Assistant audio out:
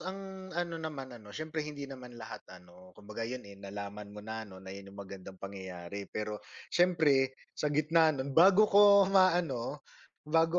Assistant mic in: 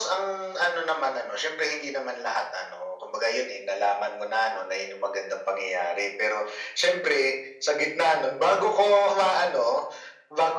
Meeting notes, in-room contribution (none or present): none